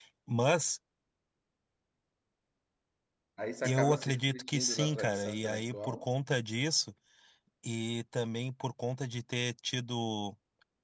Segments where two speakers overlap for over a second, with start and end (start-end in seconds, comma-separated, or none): 3.6-6.1